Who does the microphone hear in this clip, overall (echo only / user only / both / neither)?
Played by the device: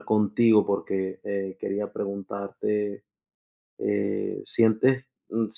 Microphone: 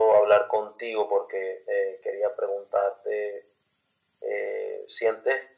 echo only